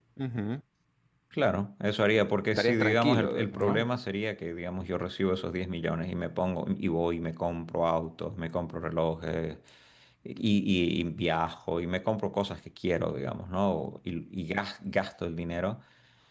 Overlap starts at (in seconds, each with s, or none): 2.6 s